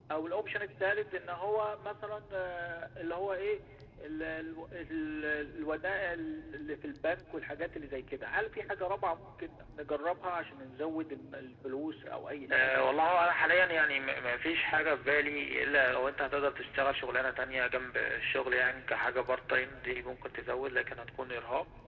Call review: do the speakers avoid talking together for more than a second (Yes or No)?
Yes